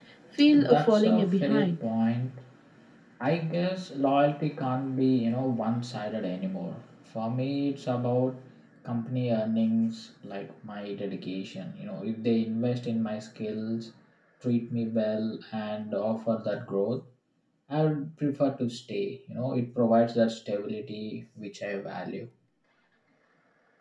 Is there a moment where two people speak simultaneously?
Yes, from 0.6 s

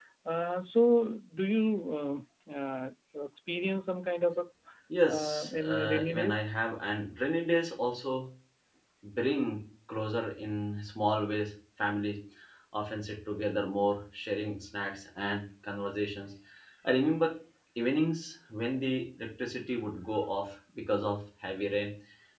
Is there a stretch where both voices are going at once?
Yes, from 5.0 s

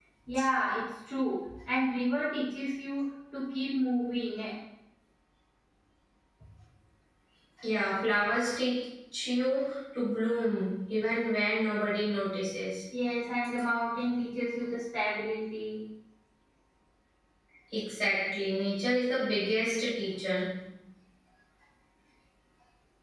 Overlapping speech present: No

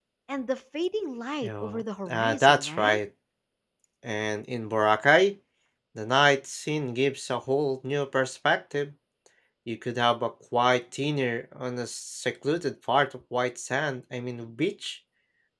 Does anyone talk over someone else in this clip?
Yes, from 1.4 s

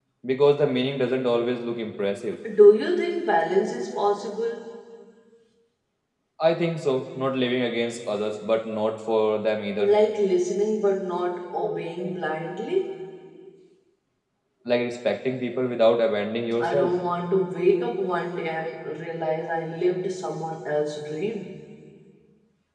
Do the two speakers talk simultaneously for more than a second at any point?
No

